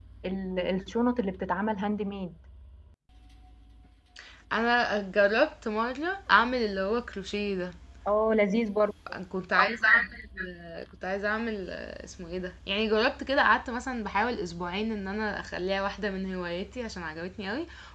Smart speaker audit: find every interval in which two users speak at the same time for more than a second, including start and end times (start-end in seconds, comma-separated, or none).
none